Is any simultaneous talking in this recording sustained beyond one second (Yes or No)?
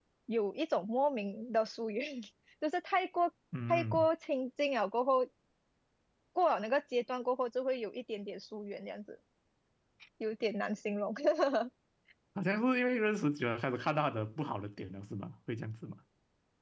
No